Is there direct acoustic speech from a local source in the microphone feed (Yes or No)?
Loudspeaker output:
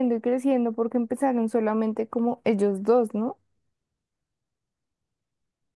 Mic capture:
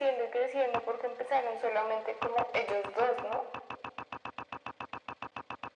No